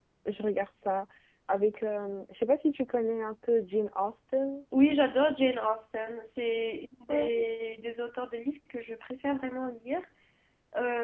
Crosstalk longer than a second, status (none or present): none